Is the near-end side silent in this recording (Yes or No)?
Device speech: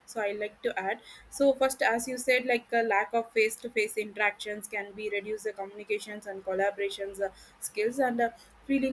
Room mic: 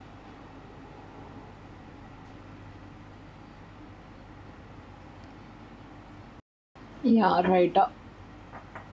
No